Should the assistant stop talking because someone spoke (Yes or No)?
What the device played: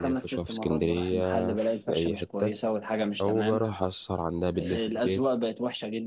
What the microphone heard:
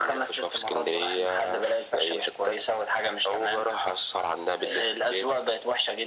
No